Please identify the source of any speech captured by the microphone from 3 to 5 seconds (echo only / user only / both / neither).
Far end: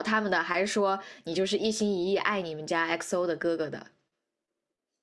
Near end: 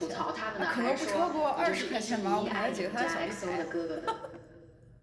both